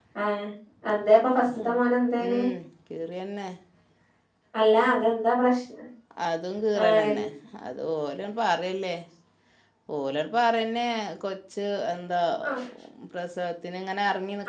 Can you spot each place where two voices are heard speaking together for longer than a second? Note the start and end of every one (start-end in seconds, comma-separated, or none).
none